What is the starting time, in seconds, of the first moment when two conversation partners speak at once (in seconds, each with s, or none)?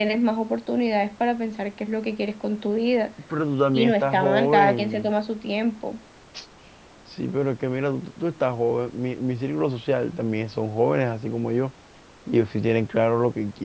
3.7 s